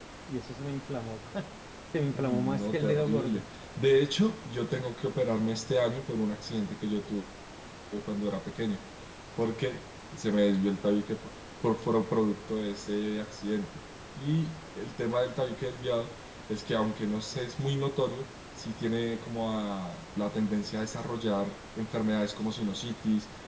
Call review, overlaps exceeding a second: present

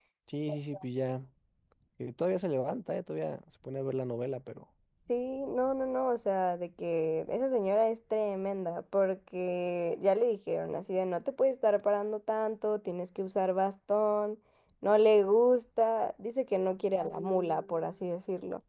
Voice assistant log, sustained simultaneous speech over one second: none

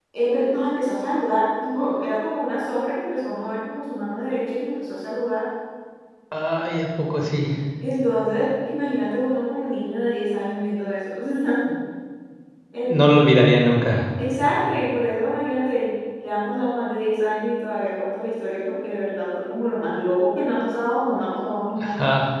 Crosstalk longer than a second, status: none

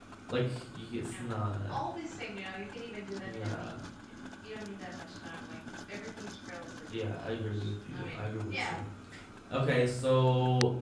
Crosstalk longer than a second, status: present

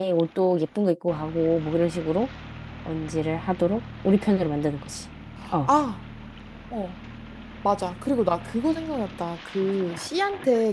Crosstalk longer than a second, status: none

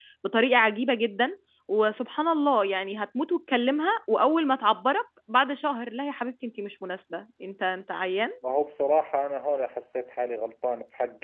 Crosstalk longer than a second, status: none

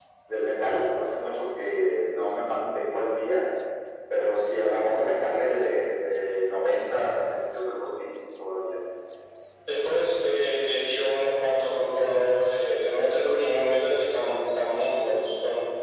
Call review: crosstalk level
none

